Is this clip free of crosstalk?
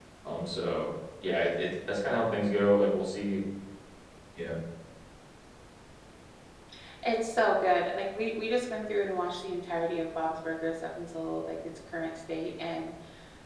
Yes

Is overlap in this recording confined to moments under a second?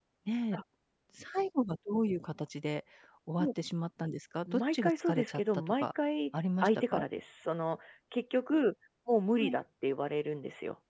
No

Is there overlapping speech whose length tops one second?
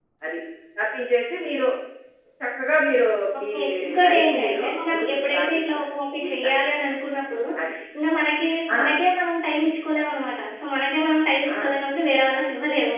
Yes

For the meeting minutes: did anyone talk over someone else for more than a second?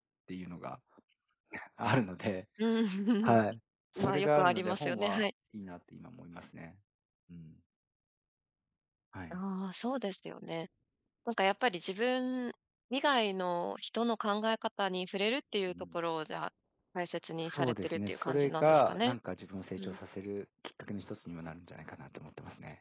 Yes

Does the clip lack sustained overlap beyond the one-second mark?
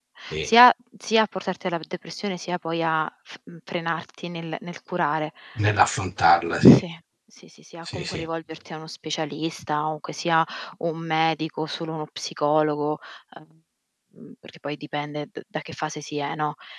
Yes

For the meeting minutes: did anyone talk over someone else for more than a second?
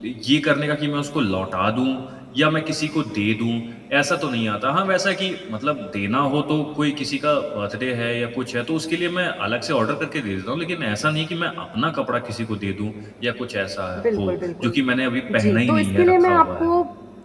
Yes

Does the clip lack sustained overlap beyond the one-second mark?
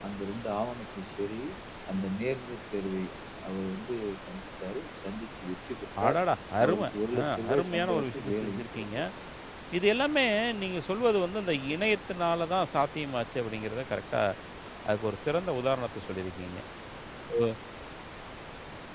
No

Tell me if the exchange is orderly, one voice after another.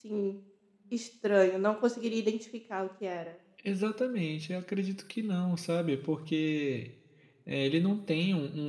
Yes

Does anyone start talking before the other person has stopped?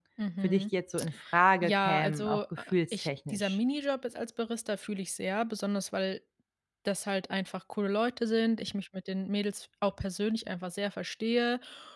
Yes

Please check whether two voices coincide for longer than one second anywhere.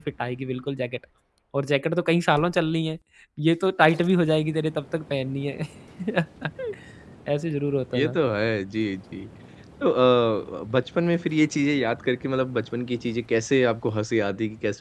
No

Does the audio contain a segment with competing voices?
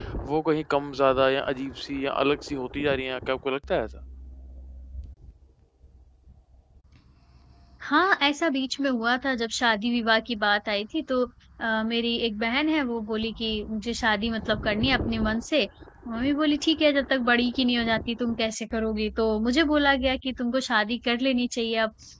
No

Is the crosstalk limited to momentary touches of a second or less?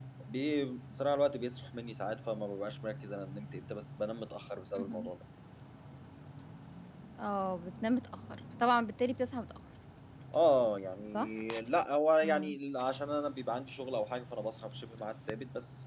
Yes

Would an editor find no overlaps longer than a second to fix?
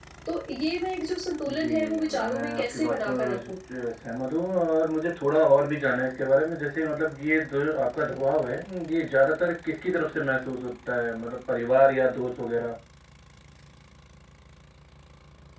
No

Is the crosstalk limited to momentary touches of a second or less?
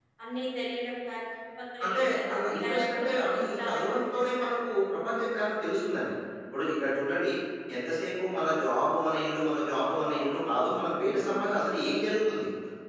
No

